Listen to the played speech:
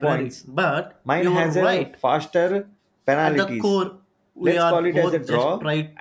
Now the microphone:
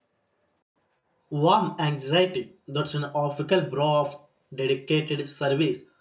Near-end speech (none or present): present